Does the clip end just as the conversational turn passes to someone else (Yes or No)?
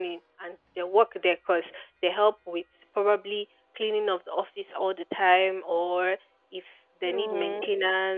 No